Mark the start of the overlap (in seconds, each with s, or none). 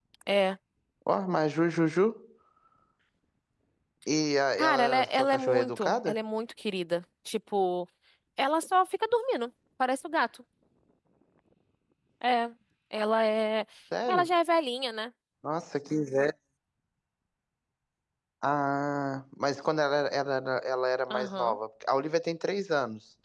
4.5 s